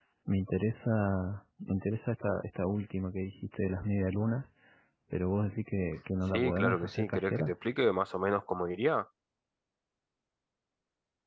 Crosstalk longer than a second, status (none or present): present